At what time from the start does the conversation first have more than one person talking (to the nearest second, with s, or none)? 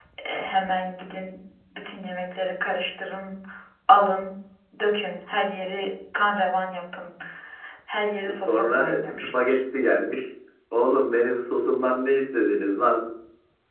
8 s